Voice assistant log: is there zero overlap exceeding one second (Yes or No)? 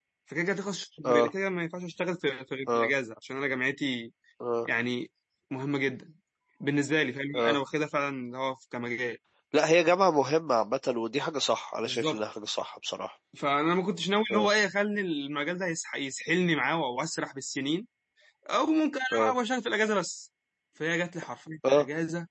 Yes